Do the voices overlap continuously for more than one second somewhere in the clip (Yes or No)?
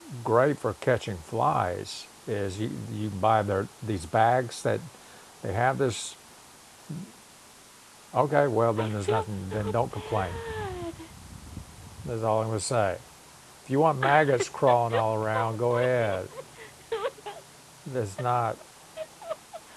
Yes